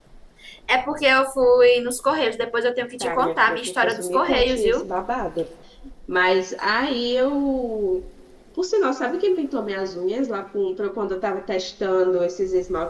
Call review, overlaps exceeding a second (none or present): present